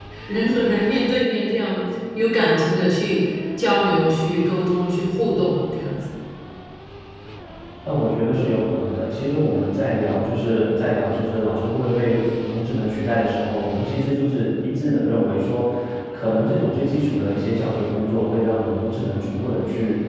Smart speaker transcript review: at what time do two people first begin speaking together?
none

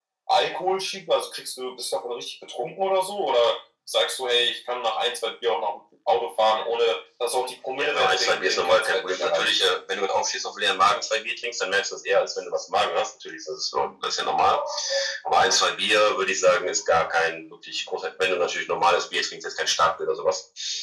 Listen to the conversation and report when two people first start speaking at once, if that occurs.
7.7 s

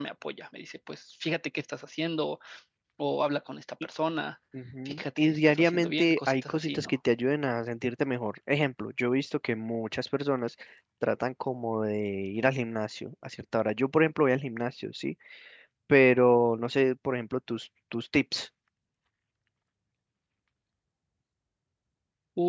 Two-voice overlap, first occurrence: 4.8 s

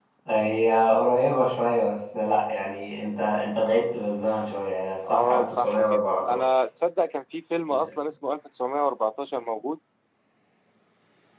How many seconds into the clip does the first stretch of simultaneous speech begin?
5.0 s

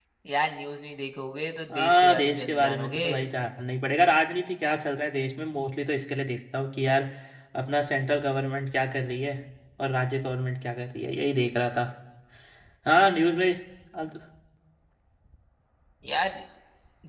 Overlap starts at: 1.7 s

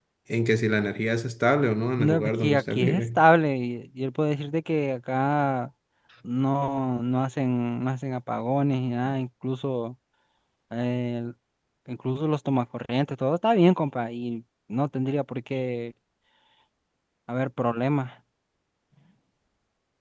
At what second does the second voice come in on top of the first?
2.0 s

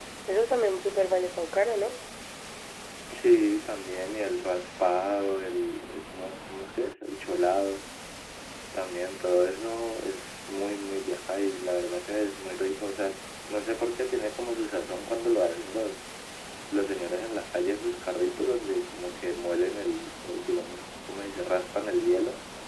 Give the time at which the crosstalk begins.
none

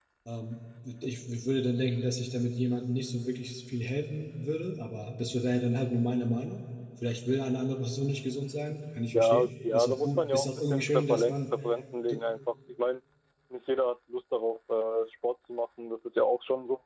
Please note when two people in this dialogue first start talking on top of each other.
9.1 s

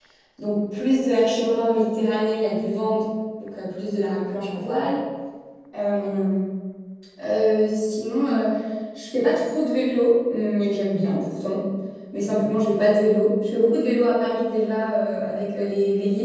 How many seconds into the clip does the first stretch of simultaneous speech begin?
none

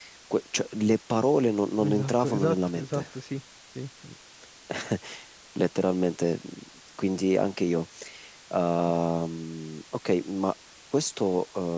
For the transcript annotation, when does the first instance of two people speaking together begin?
1.8 s

